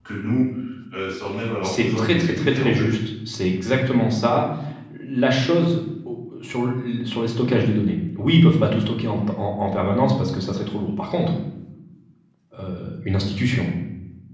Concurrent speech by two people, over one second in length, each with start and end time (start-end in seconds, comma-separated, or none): 1.6-2.9